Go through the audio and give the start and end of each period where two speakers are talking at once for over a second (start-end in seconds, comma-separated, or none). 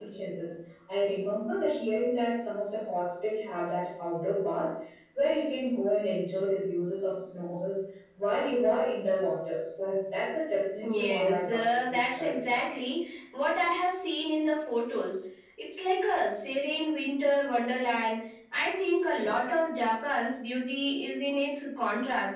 10.8-12.7